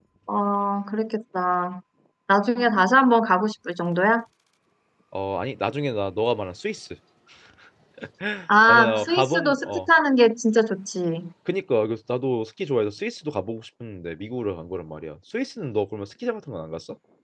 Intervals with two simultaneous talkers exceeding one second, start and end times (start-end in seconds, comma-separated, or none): 8.7-9.9